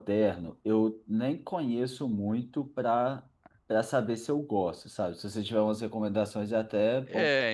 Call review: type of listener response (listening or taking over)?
taking over